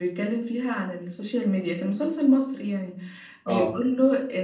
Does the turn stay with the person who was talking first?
Yes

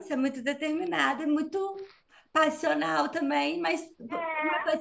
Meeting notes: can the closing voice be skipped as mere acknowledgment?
No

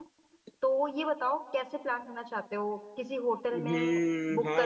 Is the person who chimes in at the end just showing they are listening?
No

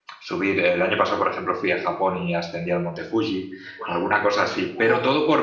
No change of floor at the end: Yes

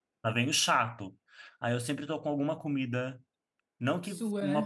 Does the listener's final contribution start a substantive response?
No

